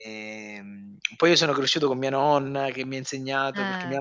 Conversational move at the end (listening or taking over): listening